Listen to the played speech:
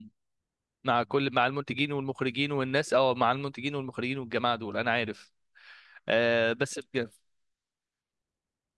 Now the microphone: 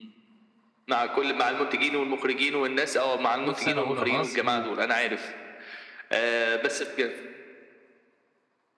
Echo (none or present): present